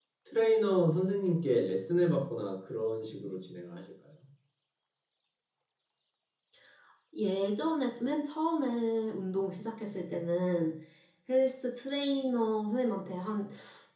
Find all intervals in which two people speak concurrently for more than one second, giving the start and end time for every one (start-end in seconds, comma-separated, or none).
none